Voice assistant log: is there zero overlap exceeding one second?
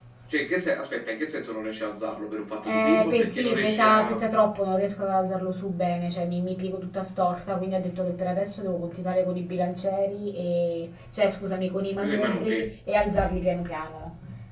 No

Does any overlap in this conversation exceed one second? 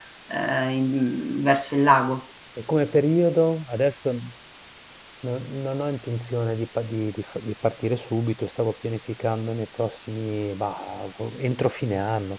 No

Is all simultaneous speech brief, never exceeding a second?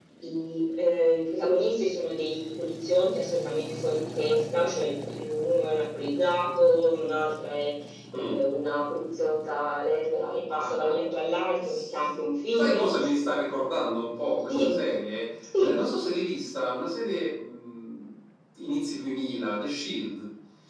Yes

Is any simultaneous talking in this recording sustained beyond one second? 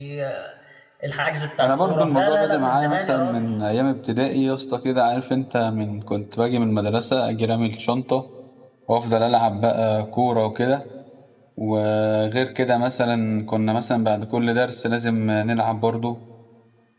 Yes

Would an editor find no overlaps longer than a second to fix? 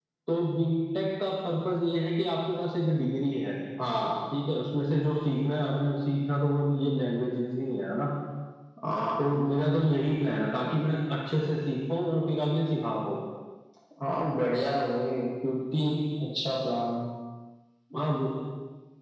Yes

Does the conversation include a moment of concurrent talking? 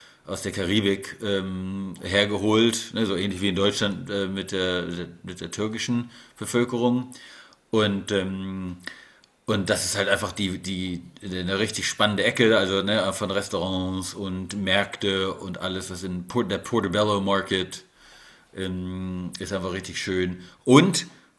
No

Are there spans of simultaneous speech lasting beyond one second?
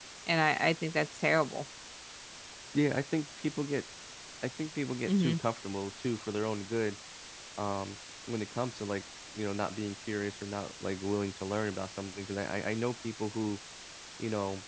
No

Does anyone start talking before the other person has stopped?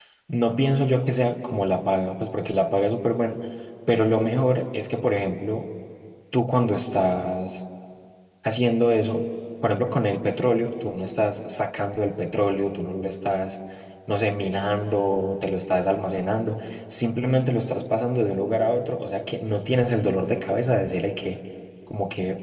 No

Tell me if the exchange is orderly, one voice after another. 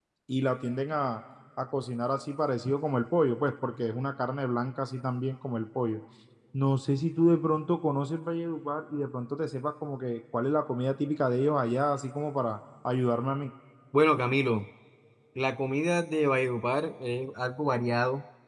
Yes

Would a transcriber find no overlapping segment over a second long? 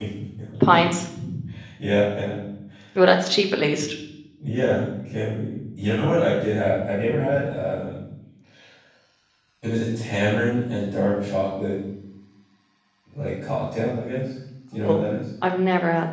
Yes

